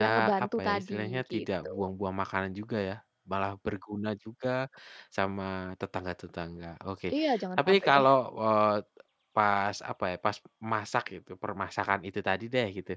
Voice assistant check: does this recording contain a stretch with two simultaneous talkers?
Yes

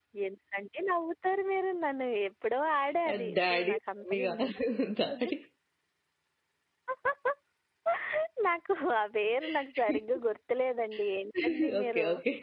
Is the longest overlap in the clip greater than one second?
Yes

